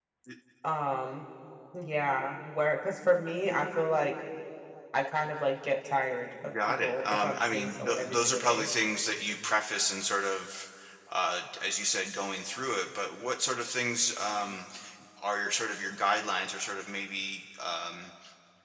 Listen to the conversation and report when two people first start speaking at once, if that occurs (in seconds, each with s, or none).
6.4 s